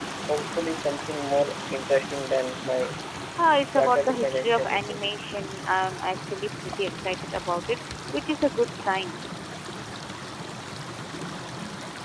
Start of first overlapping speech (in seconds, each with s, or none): 3.8 s